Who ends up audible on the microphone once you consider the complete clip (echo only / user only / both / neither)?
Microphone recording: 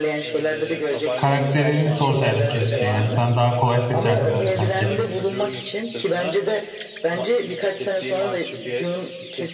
both